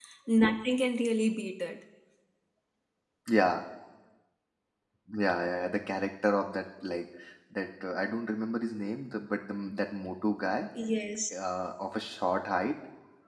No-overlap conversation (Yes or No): Yes